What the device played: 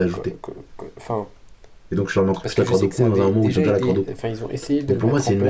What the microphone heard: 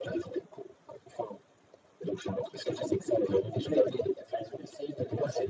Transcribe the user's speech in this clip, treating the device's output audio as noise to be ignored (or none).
none